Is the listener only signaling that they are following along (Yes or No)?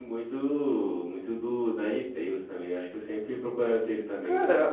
No